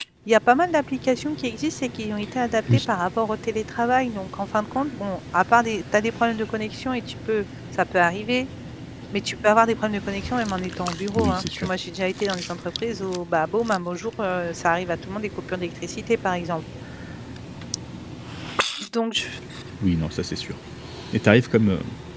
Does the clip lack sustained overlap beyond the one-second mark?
Yes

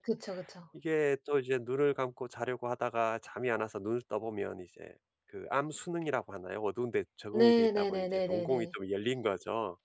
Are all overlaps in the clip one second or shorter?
No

